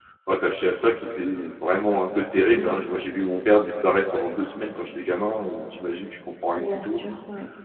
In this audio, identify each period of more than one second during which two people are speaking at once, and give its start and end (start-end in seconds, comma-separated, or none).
none